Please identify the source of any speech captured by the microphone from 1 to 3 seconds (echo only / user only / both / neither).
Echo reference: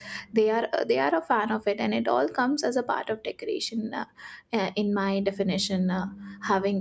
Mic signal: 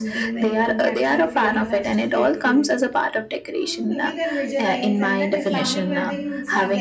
both